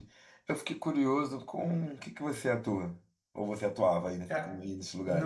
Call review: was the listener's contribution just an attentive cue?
No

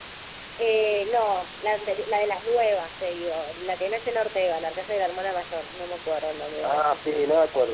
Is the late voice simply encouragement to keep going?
No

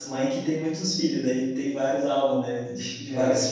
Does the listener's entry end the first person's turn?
No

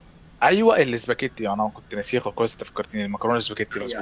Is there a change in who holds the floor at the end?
Yes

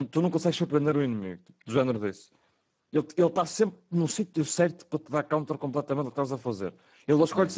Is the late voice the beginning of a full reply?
No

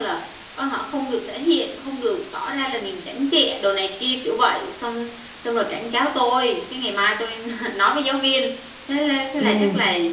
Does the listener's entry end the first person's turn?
No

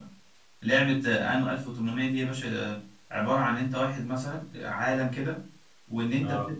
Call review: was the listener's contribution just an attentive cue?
Yes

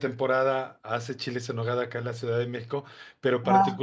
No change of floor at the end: Yes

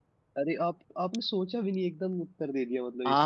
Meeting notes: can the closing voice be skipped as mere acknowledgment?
No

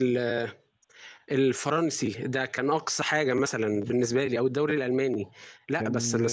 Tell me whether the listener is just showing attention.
Yes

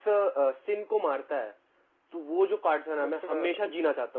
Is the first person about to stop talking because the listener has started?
No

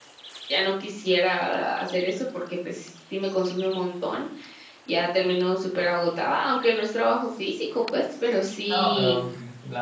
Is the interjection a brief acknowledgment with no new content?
No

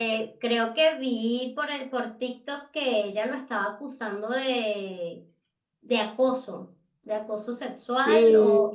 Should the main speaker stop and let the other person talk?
No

